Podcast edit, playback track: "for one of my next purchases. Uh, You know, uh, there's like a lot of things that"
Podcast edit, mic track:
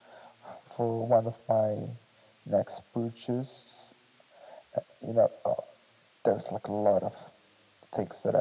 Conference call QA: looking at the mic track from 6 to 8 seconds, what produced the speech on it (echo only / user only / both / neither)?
echo only